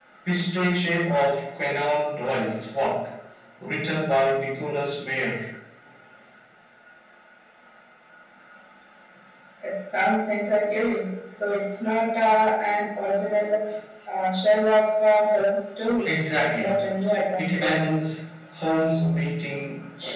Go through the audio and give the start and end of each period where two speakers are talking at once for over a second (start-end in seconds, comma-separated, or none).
none